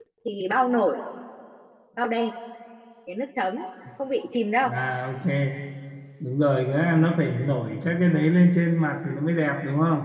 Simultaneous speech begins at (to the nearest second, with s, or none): none